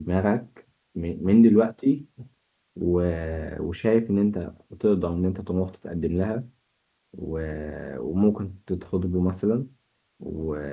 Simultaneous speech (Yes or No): No